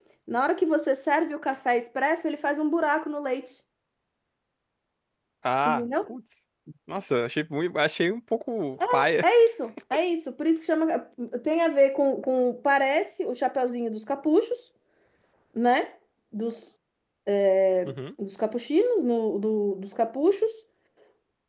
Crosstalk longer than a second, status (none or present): none